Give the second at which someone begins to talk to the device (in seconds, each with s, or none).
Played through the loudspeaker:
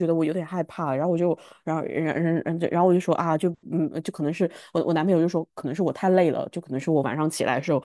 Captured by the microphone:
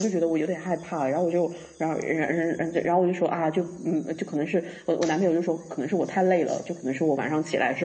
none